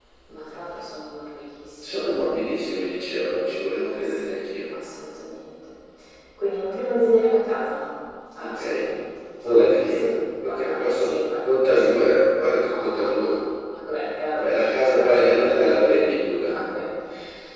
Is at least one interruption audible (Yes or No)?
Yes